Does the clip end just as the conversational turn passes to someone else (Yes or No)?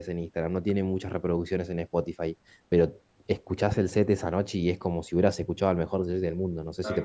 Yes